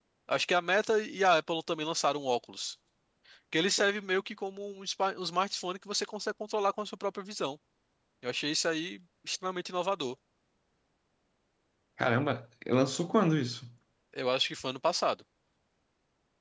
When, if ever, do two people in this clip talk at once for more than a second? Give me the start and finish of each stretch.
none

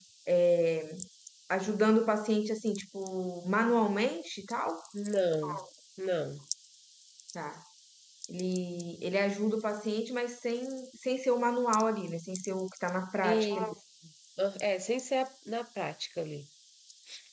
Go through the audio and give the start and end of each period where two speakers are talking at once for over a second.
none

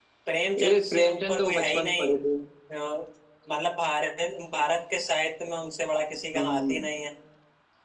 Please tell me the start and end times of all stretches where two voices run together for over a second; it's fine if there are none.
0.6-2.2

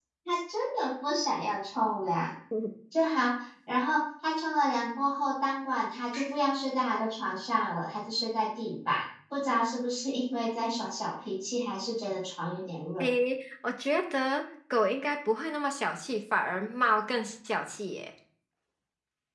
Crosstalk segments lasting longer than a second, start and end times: none

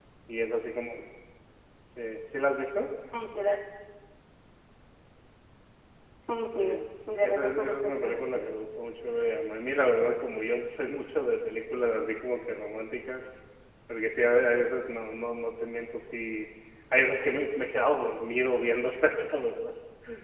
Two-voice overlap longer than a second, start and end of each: 7.2-8.5

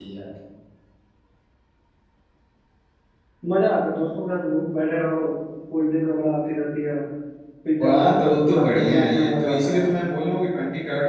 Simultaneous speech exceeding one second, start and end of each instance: 7.8-9.9

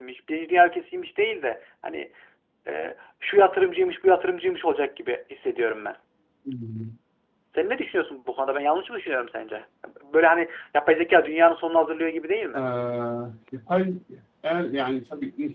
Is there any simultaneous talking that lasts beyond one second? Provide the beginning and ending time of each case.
none

